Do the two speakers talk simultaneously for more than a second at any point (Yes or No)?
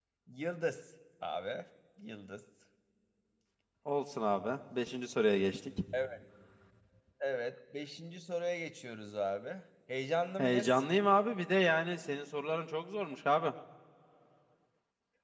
No